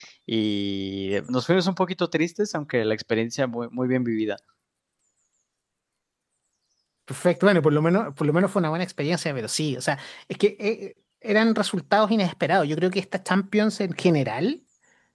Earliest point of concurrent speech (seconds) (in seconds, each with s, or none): none